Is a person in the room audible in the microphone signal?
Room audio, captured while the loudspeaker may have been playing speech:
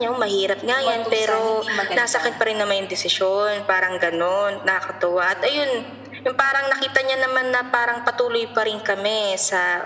Yes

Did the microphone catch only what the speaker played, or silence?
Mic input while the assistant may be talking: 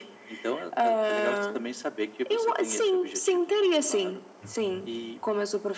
No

